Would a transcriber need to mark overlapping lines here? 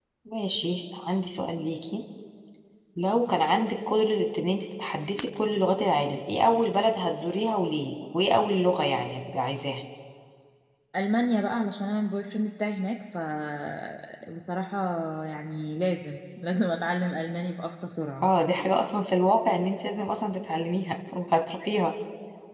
No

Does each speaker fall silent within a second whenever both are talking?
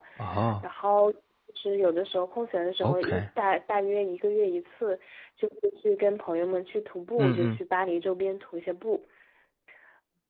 Yes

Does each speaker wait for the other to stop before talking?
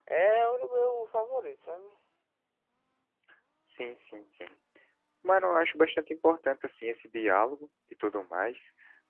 Yes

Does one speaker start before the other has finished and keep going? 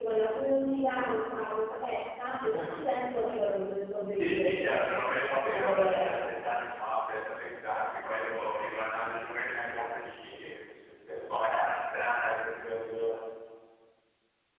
Yes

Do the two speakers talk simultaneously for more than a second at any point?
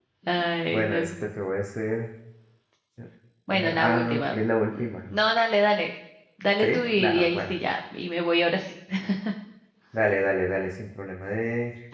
Yes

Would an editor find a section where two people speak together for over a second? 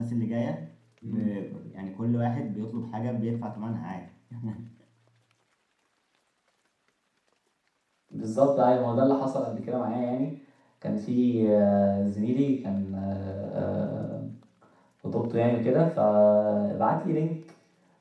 No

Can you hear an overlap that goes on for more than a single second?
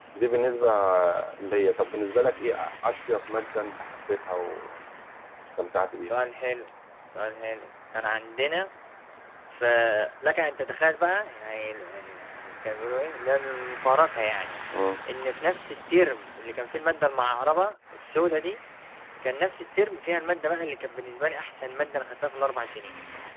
No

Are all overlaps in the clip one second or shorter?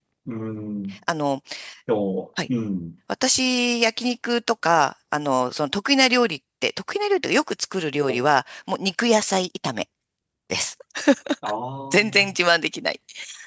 Yes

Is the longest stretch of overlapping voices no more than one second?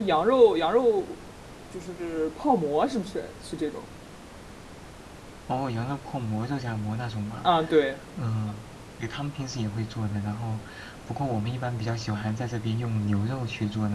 Yes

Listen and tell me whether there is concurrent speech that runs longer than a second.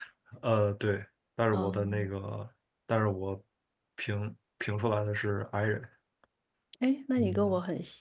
No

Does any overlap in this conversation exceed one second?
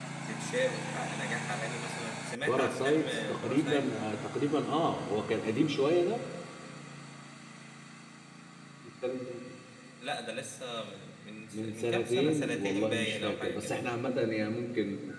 Yes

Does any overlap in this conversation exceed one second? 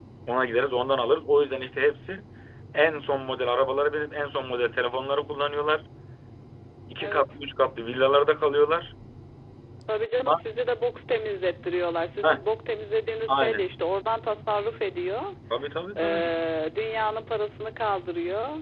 No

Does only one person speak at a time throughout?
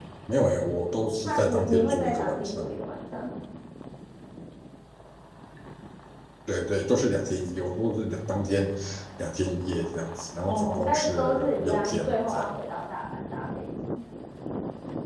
No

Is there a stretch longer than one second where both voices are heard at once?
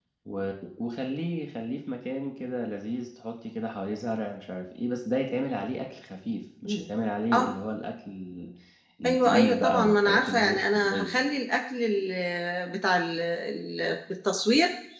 Yes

